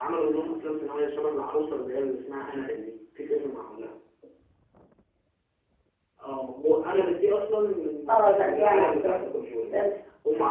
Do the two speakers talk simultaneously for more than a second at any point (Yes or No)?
Yes